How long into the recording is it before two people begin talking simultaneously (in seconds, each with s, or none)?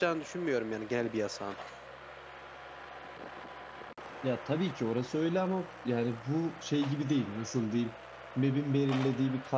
none